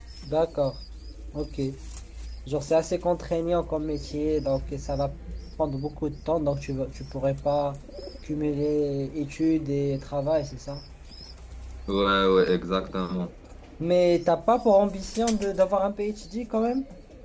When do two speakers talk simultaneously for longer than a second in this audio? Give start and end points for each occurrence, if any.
none

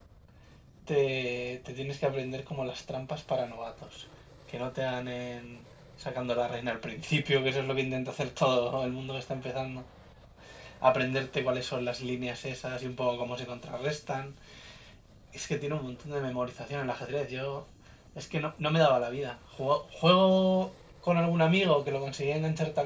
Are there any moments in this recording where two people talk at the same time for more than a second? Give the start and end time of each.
none

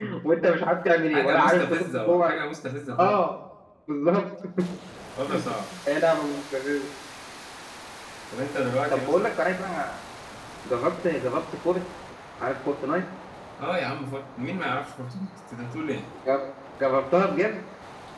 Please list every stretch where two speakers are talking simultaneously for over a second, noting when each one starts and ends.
1.1-2.4

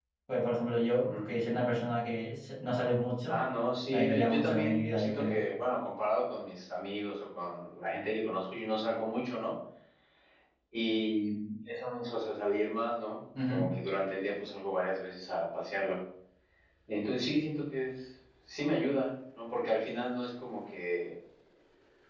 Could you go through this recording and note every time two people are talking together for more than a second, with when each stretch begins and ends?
3.9-5.4

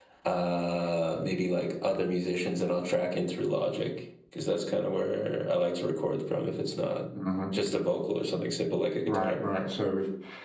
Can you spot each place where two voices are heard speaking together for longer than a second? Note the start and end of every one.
none

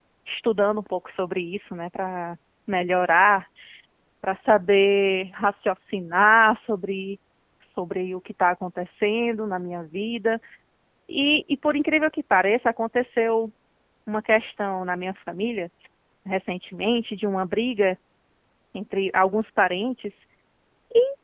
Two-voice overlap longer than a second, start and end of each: none

